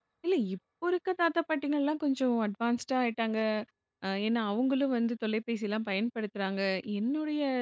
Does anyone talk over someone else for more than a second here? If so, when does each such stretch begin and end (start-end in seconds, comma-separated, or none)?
none